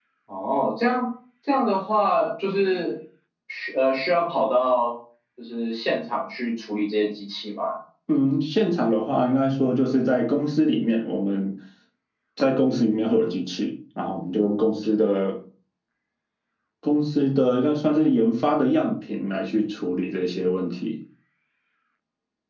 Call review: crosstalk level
none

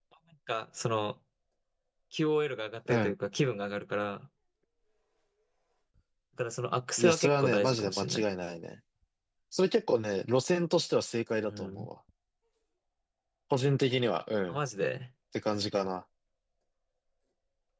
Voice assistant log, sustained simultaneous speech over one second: present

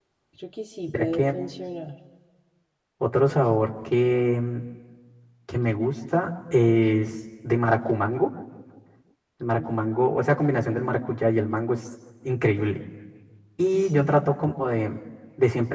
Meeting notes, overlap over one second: none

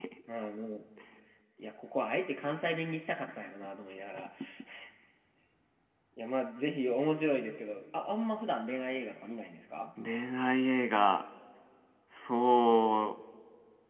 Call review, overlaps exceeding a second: none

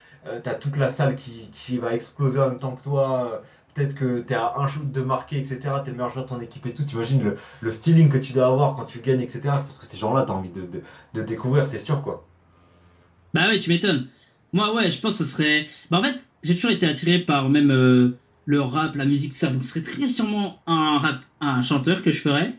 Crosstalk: none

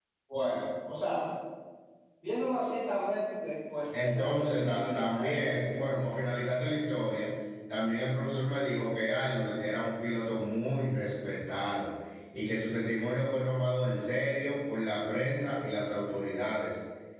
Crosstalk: present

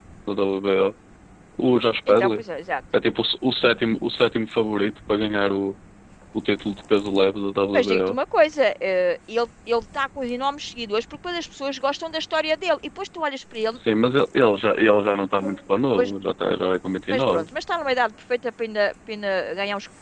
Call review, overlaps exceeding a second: none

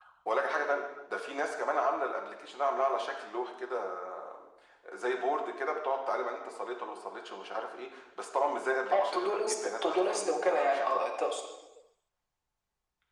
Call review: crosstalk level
present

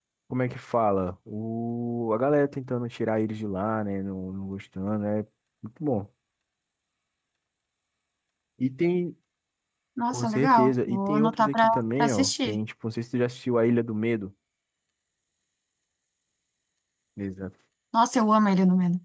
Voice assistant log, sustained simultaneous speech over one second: present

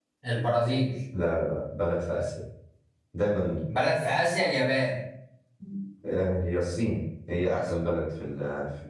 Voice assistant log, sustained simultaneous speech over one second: none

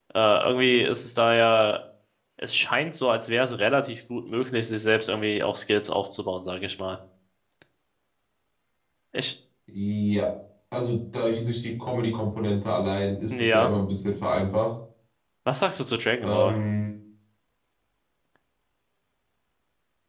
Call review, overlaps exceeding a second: none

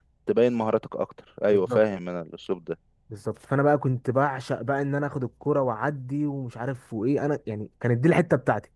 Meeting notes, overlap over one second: none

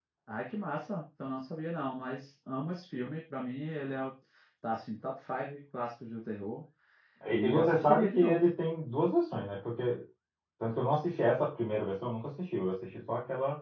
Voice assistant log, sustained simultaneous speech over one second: present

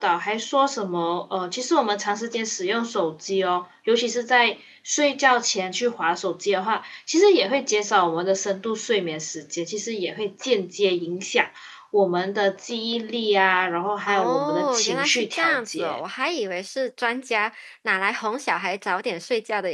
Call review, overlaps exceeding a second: present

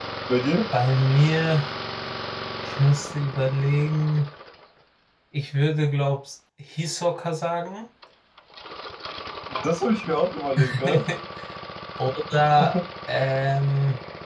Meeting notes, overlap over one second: none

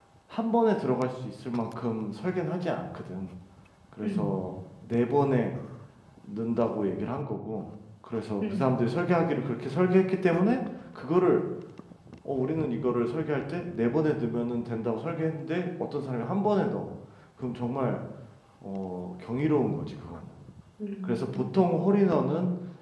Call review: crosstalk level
present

